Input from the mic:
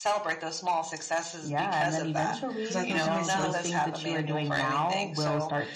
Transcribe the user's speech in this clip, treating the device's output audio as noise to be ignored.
'cause I thought to myself,

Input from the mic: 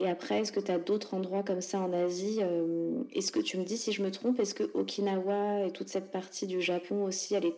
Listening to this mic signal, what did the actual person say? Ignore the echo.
none

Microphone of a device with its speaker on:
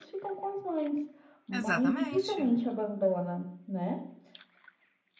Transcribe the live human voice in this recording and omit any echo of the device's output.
Exatamente.

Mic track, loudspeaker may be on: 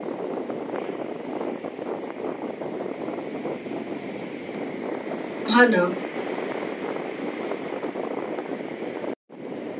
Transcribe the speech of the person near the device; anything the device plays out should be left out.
हां ना.

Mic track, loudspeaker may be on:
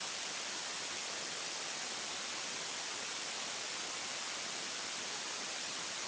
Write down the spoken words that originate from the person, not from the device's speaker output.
none

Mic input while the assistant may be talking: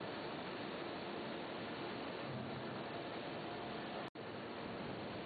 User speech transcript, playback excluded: none

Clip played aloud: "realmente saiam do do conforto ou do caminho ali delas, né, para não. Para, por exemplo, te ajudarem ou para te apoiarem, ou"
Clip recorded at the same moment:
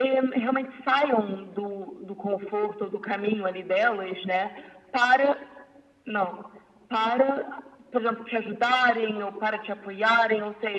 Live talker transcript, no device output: none

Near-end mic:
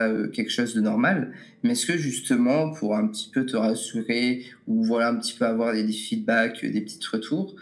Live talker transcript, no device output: none

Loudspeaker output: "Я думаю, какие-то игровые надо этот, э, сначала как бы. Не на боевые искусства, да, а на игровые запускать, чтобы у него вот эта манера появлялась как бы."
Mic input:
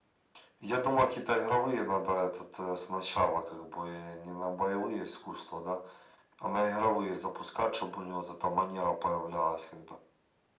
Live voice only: none

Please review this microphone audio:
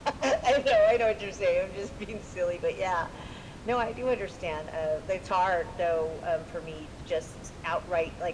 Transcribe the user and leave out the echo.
none

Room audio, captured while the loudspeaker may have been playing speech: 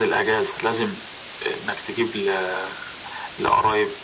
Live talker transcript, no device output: none

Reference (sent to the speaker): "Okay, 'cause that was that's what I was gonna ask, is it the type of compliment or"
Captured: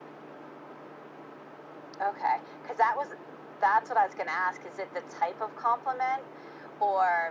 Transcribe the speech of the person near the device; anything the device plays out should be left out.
none

